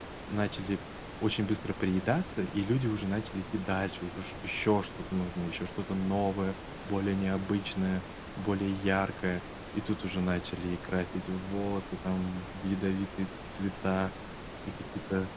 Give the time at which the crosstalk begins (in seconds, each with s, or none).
none